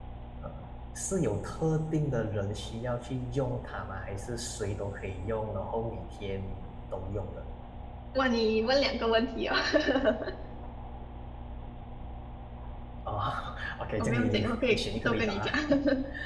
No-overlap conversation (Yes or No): No